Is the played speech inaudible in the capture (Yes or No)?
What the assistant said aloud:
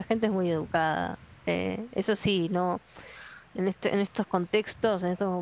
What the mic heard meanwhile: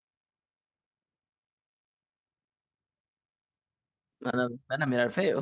Yes